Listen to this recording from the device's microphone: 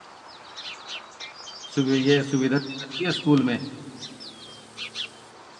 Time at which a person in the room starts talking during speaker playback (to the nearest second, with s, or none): 2 s